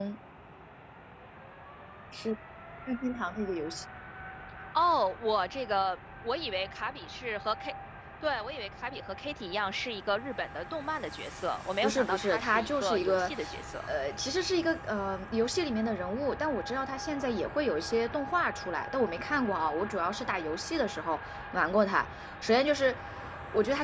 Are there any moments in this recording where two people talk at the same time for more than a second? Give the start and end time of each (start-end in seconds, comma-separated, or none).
11.8-13.3